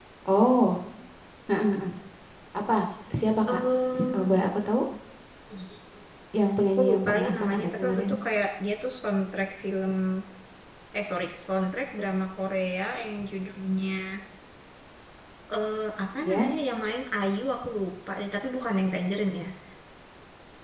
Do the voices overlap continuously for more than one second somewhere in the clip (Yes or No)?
Yes